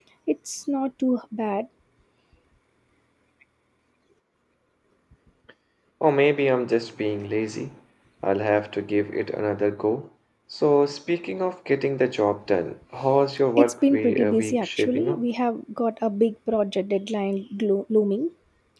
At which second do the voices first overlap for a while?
14 s

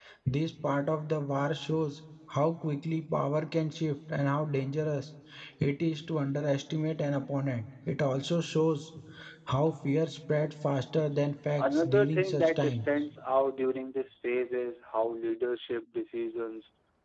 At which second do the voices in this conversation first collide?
12 s

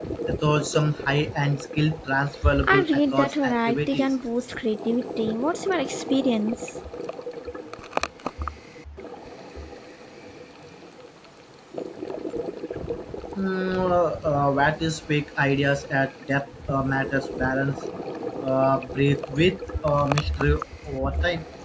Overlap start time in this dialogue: 3 s

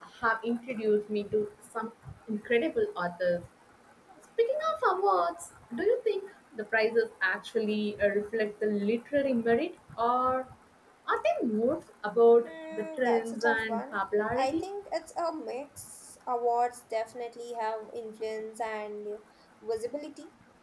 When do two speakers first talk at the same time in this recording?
12 s

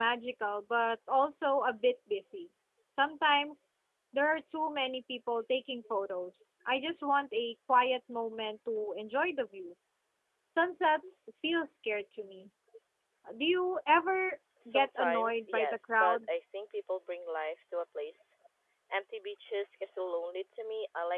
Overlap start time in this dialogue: 15 s

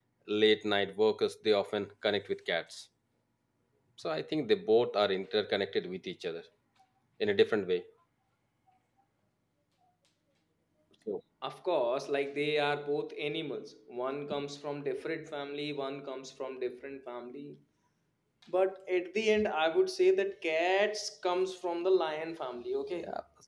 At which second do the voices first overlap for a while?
none

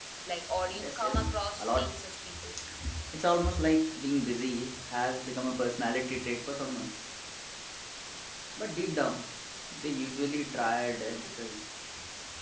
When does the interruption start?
1 s

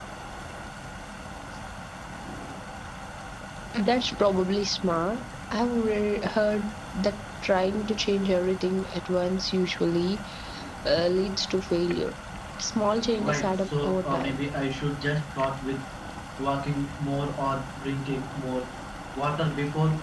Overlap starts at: 13 s

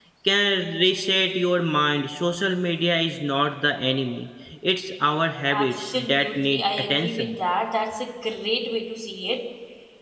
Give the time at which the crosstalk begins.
6 s

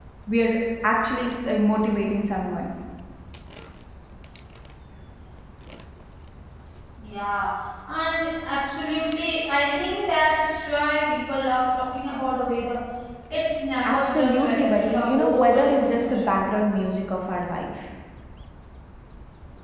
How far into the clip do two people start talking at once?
14 s

